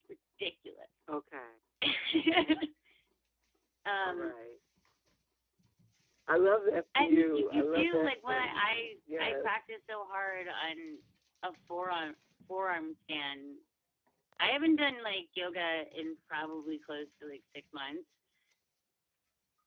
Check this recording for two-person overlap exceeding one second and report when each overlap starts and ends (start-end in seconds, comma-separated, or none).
7.0-8.9